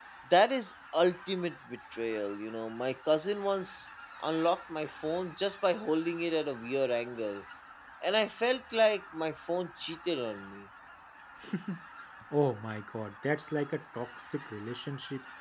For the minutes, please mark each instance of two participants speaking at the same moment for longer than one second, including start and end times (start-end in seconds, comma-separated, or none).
none